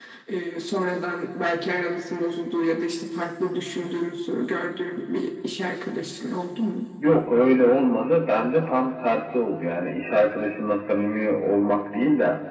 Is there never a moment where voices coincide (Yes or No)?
Yes